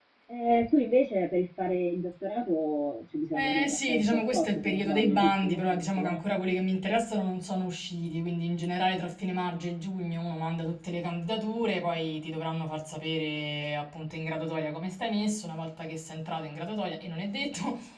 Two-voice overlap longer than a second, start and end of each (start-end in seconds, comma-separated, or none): 3.4-6.2